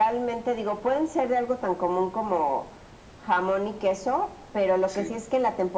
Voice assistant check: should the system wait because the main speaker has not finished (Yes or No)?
Yes